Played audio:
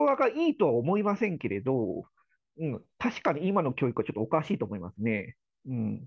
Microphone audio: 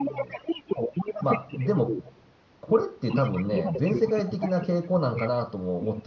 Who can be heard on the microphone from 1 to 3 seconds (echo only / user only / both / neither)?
both